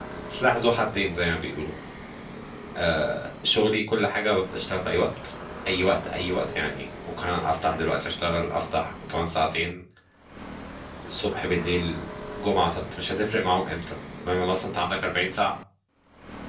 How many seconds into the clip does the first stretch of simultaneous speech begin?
none

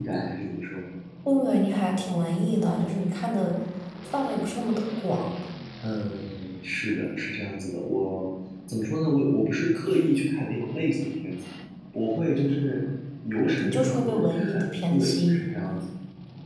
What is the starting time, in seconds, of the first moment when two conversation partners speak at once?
13.6 s

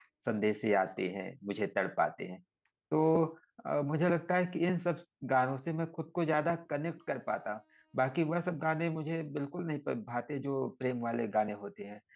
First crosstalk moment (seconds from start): none

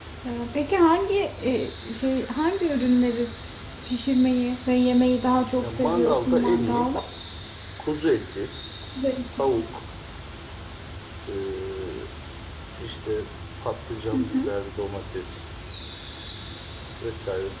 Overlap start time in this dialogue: 5.6 s

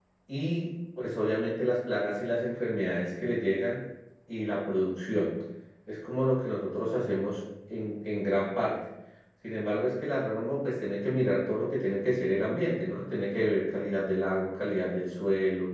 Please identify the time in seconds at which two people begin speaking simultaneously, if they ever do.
none

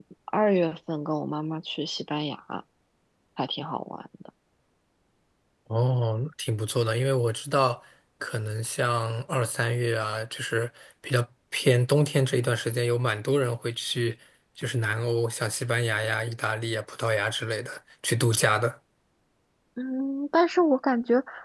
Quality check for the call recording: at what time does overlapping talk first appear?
none

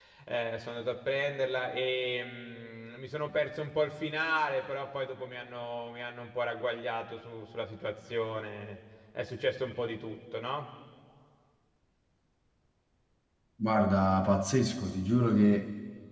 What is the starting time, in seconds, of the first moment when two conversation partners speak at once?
none

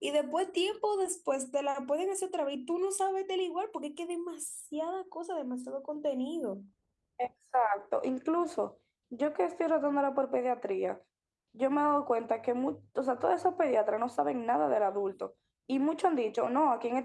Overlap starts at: none

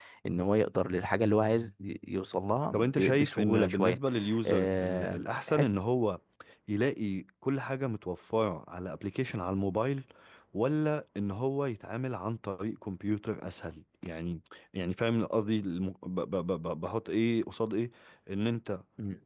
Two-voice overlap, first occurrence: 2.7 s

